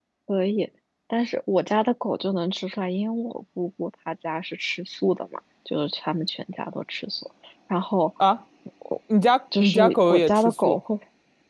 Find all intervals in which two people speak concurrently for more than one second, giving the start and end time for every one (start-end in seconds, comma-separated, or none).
9.6-10.8